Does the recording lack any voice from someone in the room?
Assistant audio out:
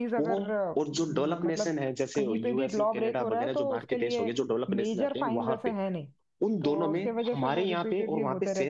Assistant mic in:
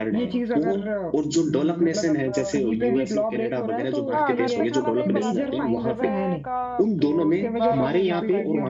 No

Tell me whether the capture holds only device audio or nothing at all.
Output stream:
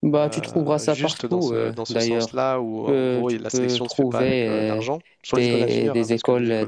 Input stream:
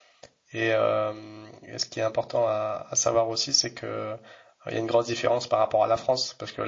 No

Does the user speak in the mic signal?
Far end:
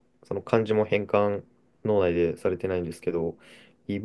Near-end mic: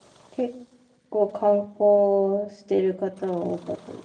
Yes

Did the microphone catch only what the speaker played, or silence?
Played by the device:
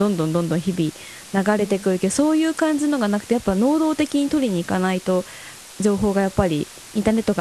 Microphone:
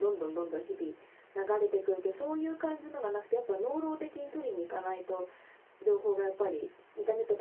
Yes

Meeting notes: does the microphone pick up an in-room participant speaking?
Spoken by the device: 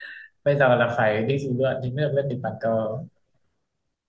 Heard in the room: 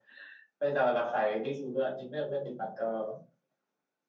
No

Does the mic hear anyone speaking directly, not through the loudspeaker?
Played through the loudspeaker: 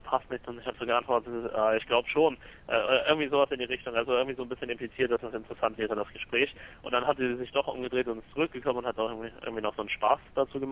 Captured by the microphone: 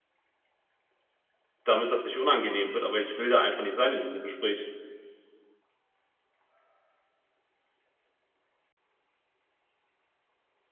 Yes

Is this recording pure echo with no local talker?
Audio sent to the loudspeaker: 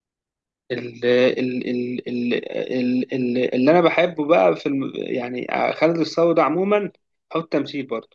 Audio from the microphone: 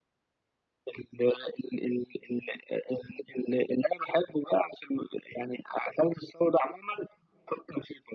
Yes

